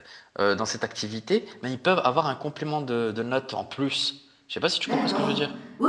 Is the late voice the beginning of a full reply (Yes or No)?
Yes